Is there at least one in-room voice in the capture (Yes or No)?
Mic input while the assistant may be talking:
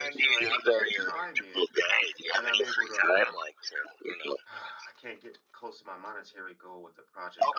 Yes